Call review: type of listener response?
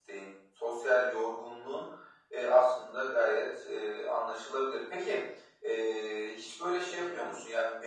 listening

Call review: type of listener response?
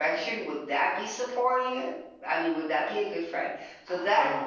listening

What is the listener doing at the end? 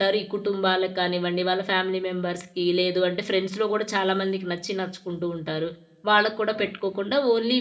listening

